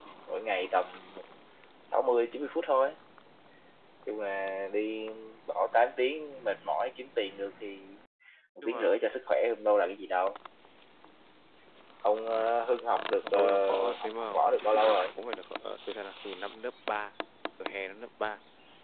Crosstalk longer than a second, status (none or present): present